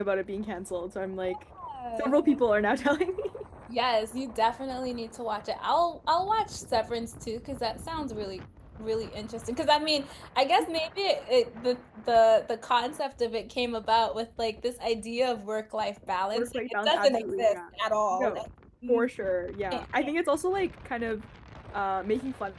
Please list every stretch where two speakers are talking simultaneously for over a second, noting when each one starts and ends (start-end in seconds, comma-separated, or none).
16.3-17.6